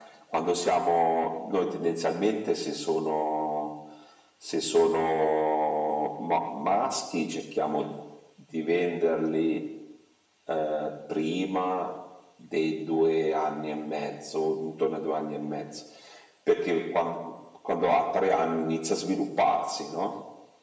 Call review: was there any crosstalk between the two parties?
No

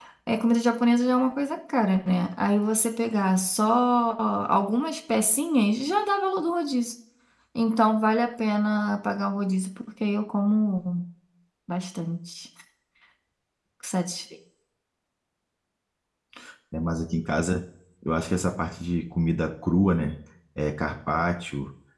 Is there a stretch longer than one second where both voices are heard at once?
No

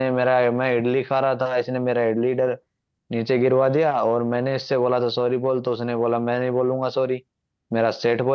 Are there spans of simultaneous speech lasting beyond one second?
No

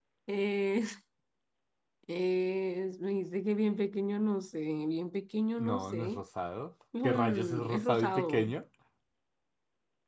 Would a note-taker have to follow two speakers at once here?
Yes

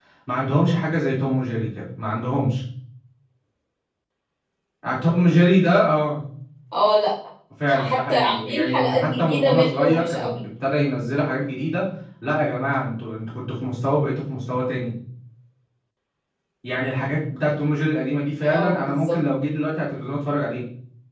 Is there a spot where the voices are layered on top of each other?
Yes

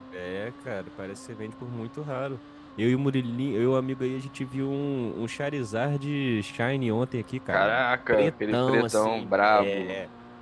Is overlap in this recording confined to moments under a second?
No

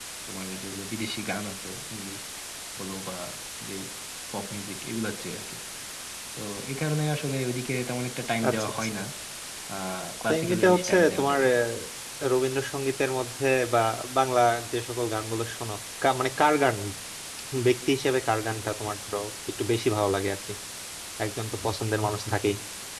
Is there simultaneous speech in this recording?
Yes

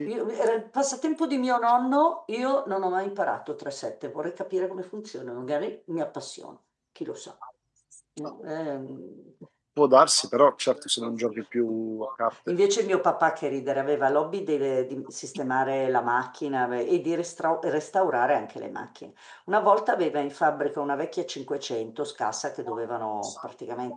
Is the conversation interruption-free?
Yes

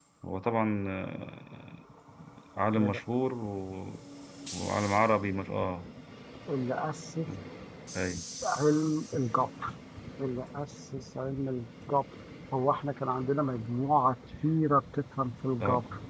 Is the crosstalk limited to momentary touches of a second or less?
Yes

